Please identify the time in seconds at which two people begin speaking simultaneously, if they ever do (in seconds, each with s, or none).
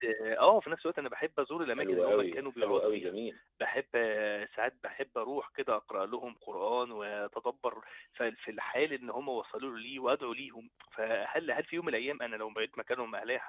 1.8 s